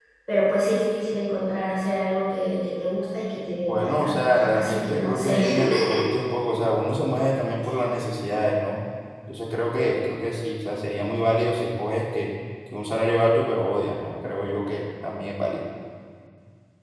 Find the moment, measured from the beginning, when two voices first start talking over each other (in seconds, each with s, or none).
3.6 s